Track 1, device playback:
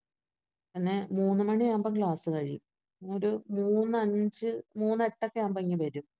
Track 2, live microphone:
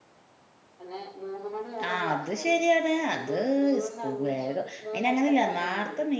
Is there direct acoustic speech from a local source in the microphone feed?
Yes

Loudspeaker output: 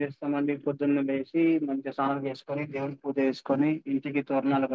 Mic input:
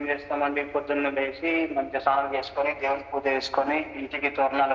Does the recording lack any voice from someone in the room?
Yes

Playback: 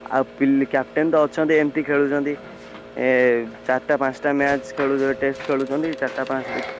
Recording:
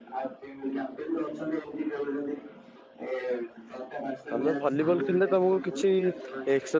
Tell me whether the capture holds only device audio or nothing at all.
No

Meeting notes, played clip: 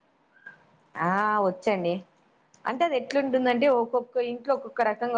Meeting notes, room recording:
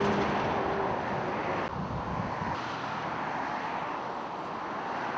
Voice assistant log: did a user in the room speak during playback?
No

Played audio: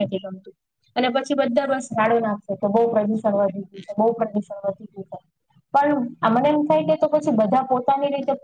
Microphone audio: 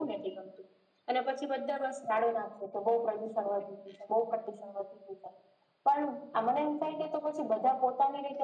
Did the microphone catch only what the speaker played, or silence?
Yes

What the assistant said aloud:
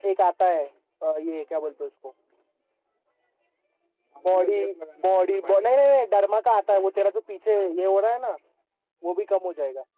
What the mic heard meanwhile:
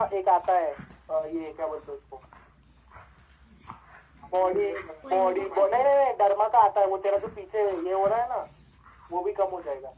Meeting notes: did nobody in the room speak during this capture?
No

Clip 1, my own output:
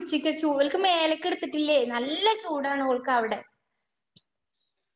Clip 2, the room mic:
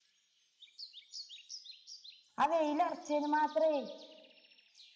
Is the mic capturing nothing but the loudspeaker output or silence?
No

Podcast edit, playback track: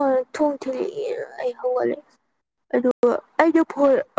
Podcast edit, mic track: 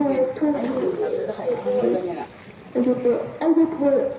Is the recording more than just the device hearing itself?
Yes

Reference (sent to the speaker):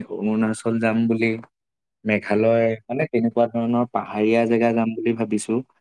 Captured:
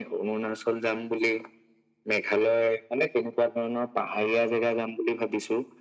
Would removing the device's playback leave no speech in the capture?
Yes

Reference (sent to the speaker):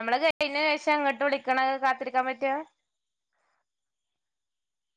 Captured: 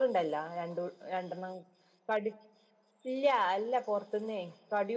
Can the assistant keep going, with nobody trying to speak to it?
No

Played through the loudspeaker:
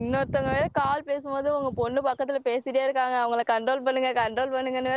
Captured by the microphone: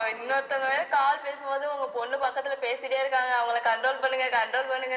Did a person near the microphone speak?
No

